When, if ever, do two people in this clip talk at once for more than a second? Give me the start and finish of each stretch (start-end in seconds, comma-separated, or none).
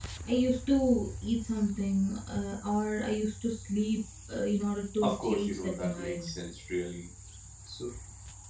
5.0-6.3